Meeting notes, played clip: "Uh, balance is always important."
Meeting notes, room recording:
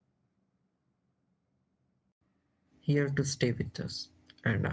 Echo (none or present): none